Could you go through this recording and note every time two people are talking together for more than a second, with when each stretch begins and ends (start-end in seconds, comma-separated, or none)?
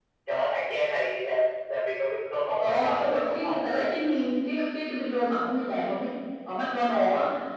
2.6-3.9